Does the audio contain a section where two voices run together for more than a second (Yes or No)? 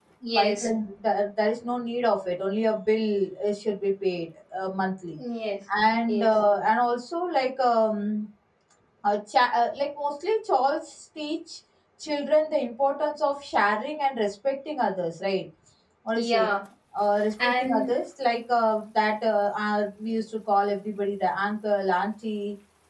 No